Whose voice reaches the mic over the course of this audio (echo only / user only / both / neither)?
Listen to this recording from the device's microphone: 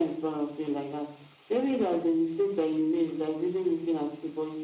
echo only